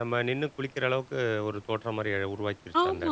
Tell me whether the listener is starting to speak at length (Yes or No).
Yes